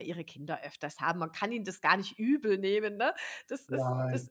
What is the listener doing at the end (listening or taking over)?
listening